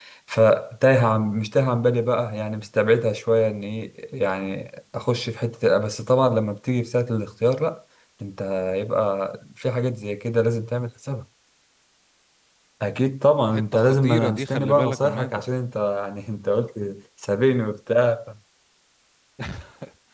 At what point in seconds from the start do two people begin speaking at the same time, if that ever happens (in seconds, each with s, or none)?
13.5 s